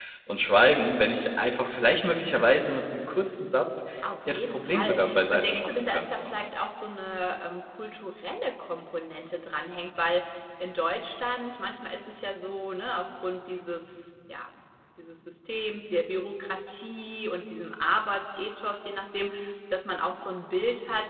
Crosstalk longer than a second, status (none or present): present